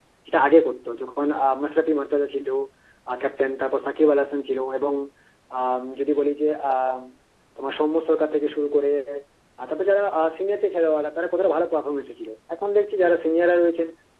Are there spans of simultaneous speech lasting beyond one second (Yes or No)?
No